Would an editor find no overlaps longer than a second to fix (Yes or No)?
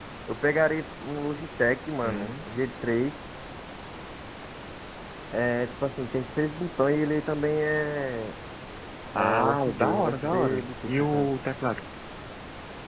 No